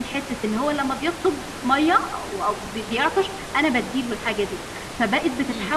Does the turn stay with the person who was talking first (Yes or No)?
Yes